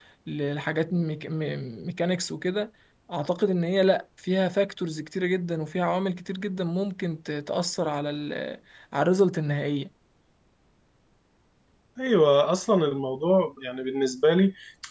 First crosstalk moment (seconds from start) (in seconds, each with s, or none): none